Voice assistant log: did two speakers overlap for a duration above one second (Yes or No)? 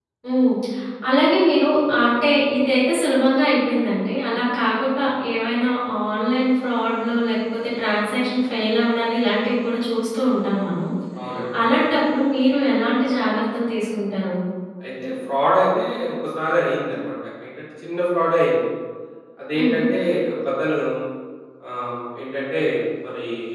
No